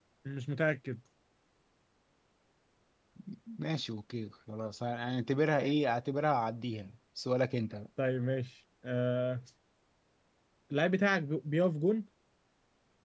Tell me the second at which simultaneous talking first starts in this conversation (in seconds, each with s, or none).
none